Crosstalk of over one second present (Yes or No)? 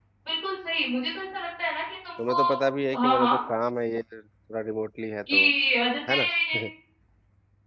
No